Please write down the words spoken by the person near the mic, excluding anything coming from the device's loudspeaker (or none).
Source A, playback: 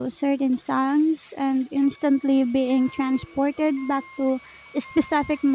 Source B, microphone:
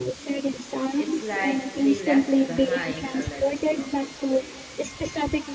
It's like they left behind a legacy of inspiration.